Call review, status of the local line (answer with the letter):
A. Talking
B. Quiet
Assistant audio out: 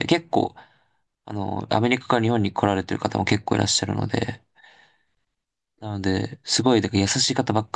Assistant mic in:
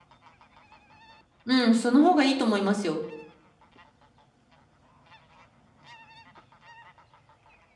A